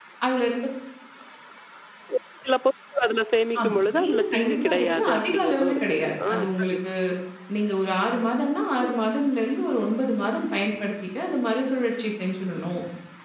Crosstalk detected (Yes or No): Yes